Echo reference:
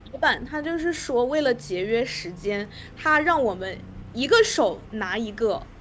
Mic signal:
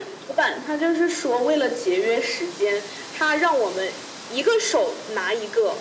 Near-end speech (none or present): none